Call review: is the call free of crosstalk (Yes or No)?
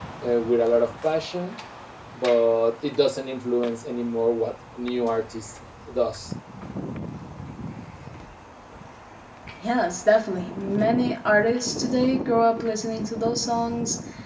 Yes